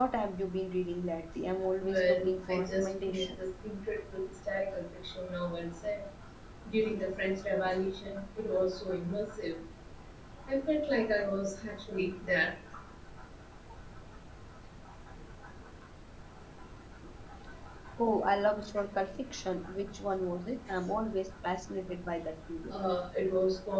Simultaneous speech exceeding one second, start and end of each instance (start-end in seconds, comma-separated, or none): 1.9-3.4